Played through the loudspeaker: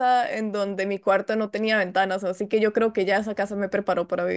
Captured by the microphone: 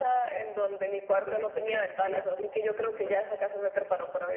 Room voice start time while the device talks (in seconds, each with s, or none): 1.2 s